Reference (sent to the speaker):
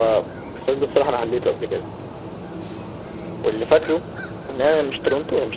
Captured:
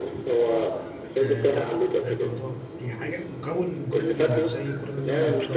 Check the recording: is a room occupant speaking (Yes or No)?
Yes